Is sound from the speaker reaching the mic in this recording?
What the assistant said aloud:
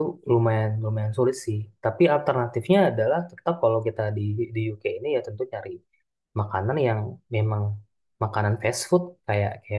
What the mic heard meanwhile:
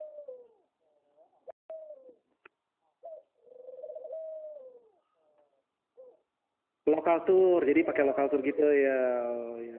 No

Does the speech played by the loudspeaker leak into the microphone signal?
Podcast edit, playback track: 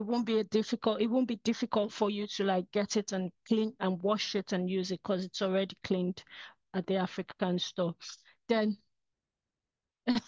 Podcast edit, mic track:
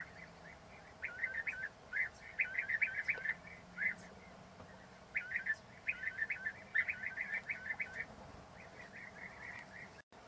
No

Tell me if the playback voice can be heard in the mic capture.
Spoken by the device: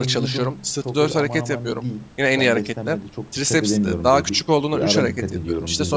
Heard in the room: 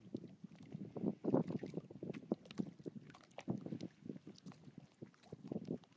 No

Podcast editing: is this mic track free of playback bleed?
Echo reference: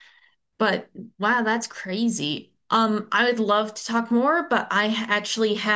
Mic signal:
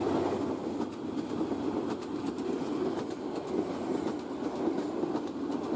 Yes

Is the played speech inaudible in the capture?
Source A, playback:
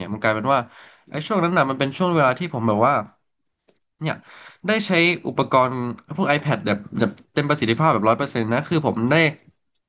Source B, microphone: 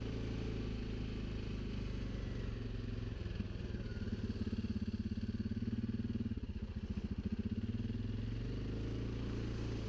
Yes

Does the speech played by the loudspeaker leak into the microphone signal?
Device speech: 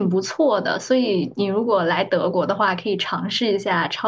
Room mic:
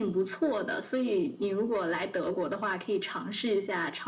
Yes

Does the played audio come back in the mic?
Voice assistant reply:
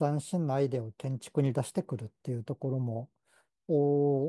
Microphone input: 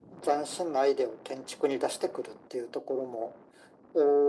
Yes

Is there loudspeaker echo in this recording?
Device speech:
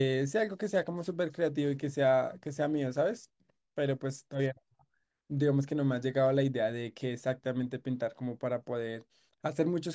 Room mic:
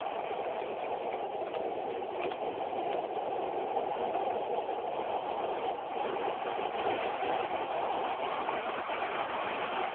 No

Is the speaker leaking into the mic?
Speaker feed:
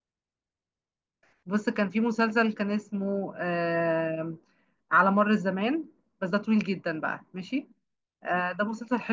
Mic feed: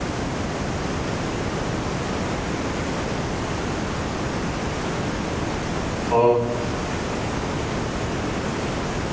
No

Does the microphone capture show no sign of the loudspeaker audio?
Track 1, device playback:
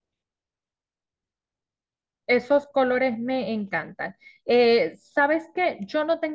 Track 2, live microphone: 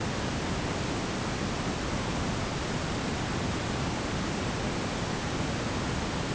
Yes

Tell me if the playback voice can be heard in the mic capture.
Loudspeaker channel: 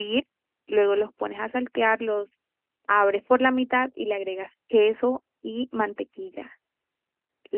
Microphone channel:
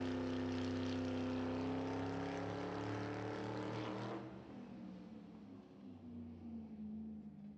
No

